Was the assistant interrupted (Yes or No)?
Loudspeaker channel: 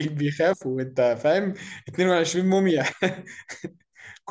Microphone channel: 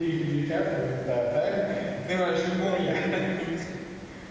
Yes